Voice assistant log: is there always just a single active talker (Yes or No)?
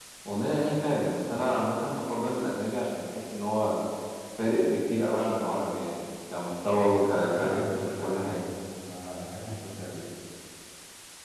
No